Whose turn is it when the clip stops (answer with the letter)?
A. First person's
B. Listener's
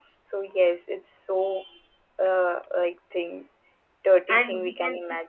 B